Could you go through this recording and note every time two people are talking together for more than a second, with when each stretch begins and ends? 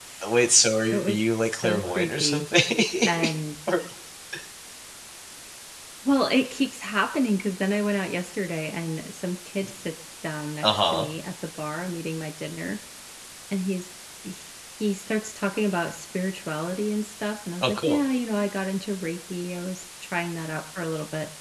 0.9-2.4

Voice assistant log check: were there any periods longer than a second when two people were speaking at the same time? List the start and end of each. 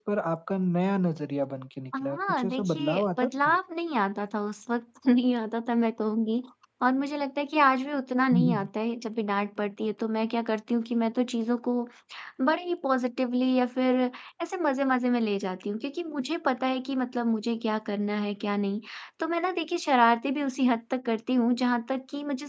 2.0-3.6

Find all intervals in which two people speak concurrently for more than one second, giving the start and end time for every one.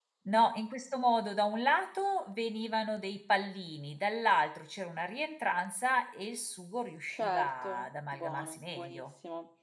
7.1-9.1

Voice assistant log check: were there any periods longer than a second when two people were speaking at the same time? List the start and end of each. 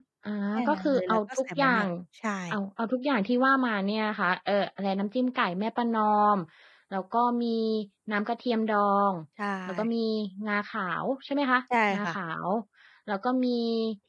0.7-1.9

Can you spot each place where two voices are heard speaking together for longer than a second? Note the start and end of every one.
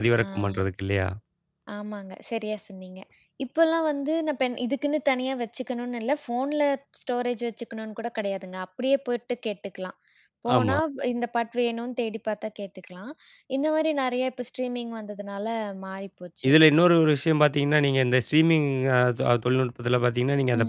none

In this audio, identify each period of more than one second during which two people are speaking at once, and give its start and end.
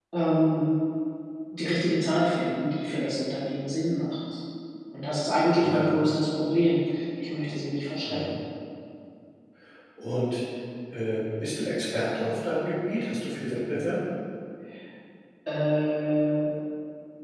none

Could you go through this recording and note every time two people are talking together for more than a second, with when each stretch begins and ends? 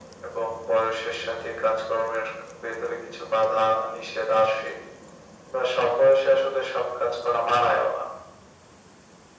none

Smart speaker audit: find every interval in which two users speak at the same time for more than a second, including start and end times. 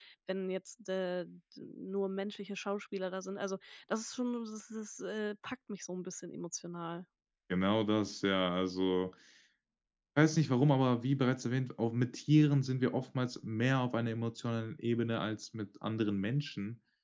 none

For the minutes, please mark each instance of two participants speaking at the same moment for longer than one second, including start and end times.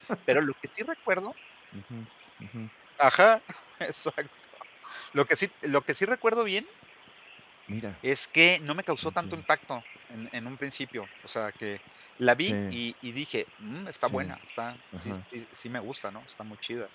none

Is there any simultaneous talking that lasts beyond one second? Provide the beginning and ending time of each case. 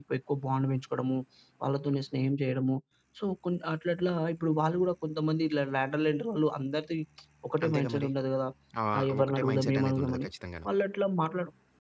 8.9-10.3

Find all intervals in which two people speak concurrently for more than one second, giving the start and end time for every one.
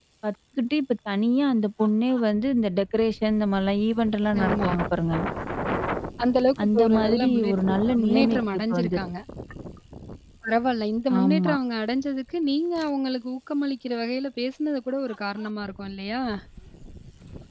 6.6-9.0

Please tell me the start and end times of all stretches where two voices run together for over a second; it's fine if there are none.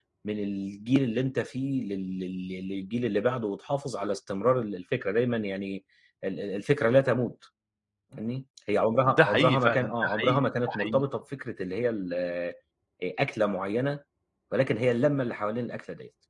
9.0-11.0

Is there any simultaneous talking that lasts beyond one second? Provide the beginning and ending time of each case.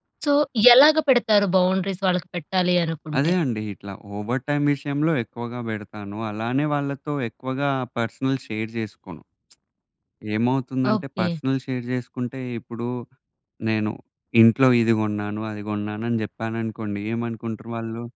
none

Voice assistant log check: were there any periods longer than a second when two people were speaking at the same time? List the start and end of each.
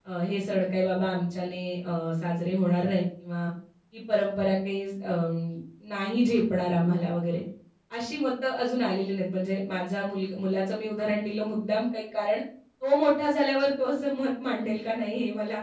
none

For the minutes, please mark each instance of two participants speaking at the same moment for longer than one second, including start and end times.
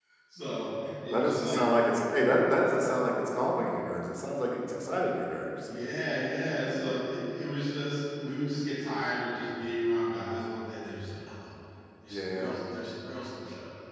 none

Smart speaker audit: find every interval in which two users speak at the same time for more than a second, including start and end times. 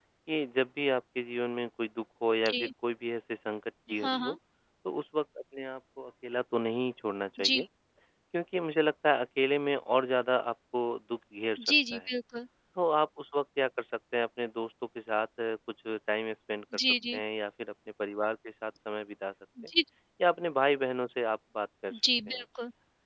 none

